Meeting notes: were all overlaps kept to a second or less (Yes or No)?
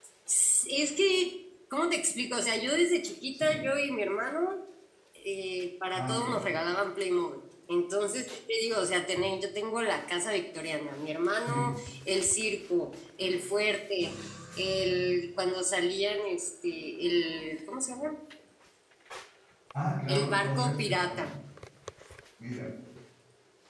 No